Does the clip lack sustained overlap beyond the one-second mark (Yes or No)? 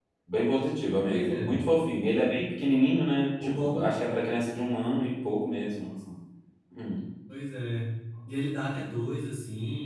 Yes